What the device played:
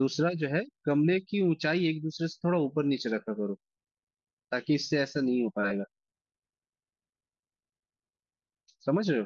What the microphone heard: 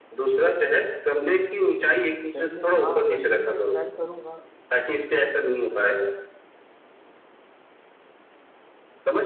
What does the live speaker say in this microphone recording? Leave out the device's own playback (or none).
सही में हाँ वैसे मैं ट्राई करूंगा